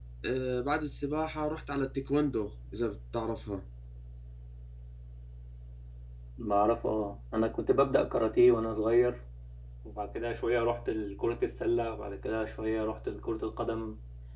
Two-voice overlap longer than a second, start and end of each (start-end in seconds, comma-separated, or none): none